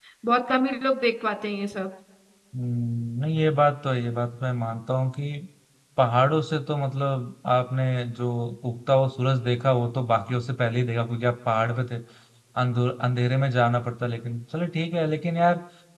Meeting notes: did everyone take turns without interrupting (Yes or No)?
Yes